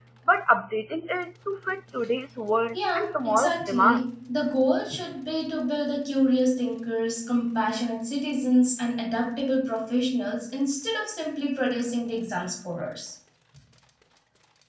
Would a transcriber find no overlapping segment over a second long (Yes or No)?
No